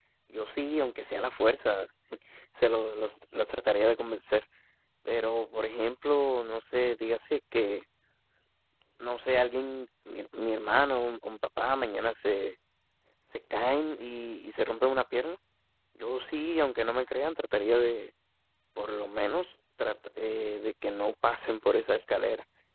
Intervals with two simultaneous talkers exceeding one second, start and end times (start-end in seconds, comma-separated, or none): none